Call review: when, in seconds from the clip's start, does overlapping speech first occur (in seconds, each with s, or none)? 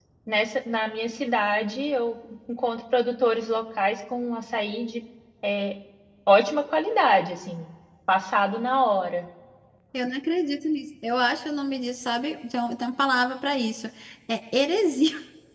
none